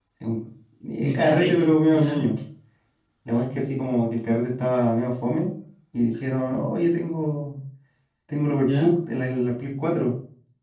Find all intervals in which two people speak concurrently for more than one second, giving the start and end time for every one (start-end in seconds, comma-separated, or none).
1.0-2.3